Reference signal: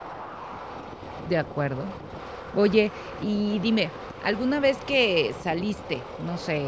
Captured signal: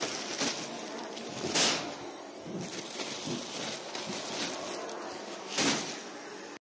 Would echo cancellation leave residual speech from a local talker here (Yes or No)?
No